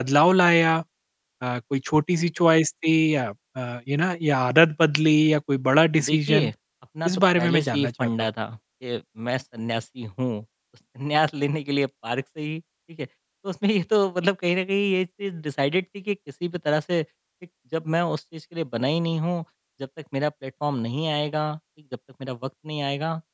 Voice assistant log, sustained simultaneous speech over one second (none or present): present